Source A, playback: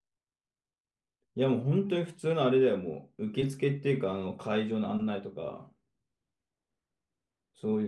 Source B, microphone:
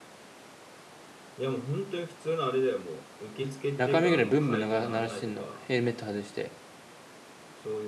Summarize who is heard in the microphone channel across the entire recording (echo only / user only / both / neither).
both